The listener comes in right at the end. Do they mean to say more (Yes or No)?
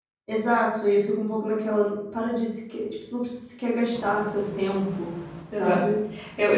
Yes